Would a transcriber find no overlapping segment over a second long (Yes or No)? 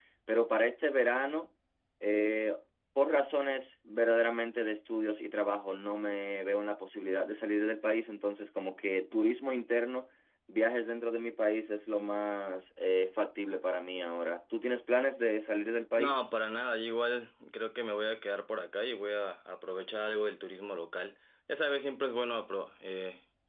Yes